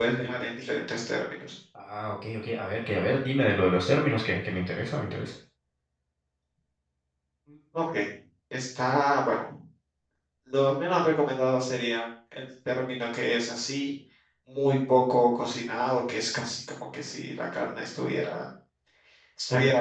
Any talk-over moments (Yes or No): No